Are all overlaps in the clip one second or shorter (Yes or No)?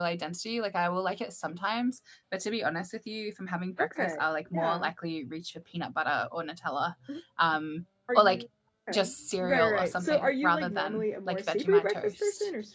No